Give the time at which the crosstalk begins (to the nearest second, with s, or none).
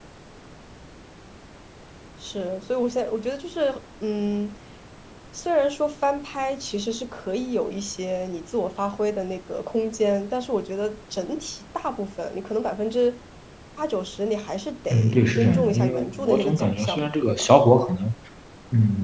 15 s